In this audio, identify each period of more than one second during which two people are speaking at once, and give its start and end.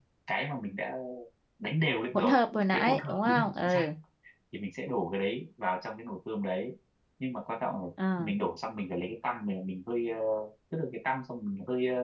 2.1-3.9

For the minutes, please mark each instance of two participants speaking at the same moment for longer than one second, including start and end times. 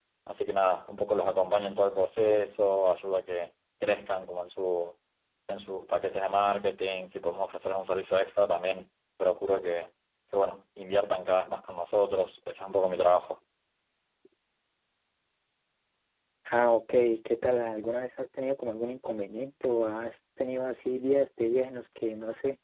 none

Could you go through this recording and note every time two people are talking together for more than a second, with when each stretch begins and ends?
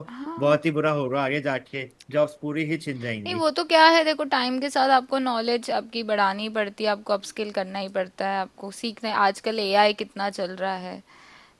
none

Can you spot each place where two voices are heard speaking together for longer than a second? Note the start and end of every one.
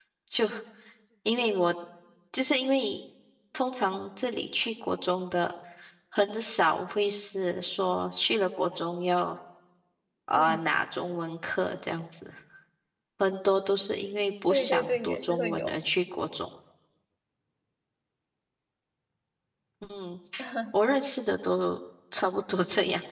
14.5-15.7

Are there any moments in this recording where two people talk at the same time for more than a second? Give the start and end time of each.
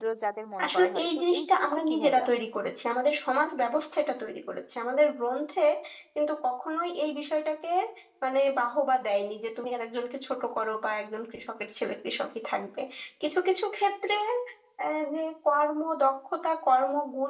0.6-2.4

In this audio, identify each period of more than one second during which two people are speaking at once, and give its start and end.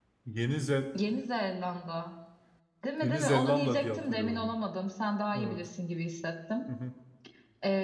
3.0-4.5

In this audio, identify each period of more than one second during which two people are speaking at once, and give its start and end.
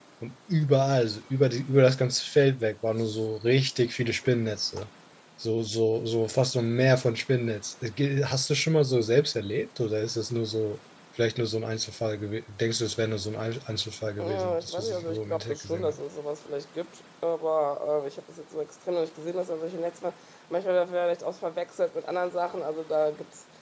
14.2-16.0

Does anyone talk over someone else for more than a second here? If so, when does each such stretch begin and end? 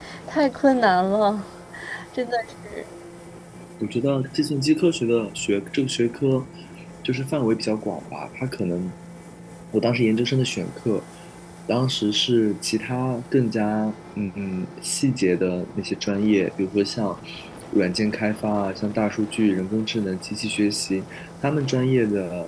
none

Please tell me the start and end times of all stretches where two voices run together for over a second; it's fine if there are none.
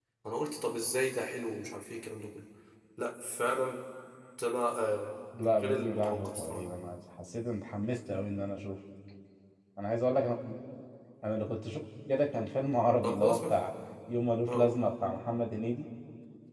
5.4-6.7

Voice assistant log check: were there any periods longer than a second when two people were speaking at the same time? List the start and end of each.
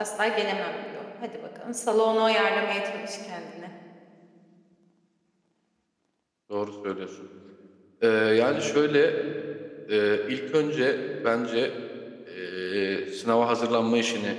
none

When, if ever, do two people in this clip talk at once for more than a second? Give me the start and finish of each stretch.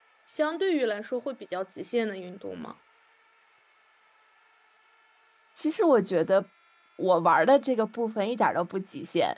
none

